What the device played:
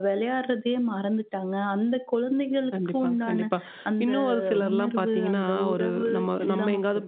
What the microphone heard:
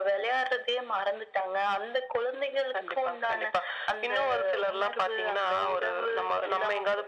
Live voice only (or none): none